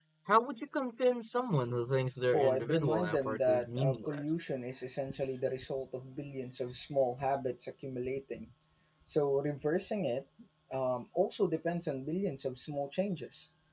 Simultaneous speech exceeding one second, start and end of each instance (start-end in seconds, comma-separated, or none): 2.3-4.4